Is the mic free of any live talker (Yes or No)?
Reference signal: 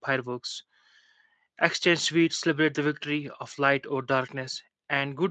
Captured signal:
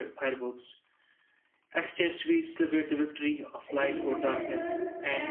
No